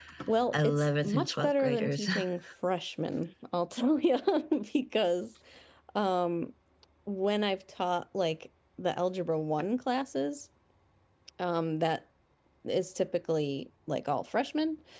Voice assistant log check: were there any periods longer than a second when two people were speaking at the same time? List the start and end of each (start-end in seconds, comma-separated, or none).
0.5-2.1